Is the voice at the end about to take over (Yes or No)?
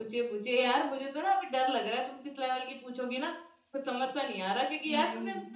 No